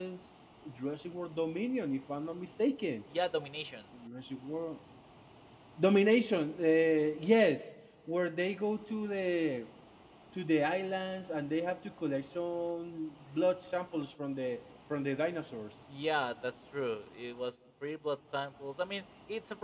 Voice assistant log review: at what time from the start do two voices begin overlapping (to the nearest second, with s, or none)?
none